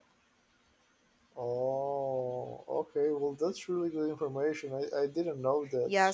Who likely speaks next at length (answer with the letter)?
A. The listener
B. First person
A